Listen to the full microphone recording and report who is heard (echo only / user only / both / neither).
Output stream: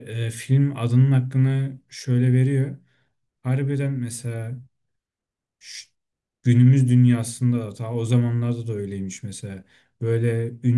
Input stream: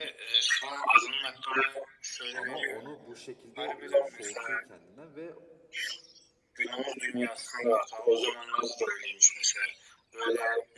both